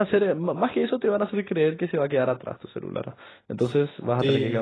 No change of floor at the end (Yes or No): No